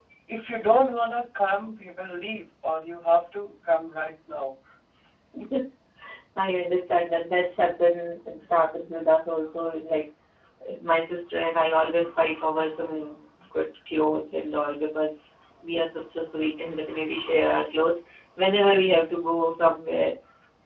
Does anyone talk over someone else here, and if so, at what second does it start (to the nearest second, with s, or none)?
none